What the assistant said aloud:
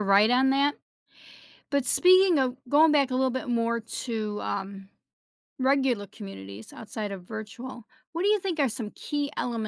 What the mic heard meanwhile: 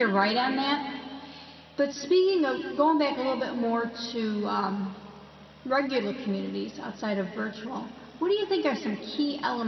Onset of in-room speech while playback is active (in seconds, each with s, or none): none